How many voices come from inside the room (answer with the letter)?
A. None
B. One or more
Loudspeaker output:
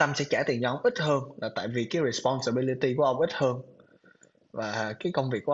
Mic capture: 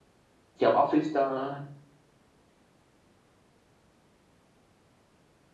B